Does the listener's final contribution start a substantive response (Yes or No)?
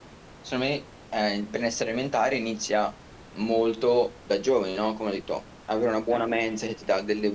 No